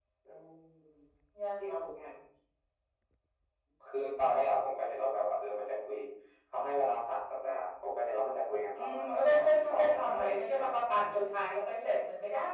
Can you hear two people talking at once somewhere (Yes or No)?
Yes